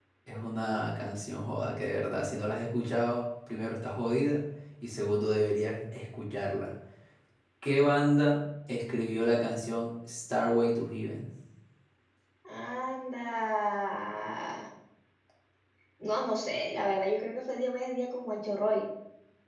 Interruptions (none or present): none